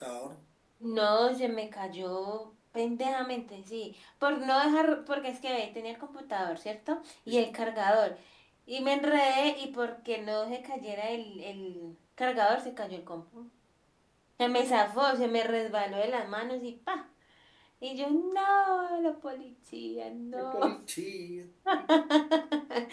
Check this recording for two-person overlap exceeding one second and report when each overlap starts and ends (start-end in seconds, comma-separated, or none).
none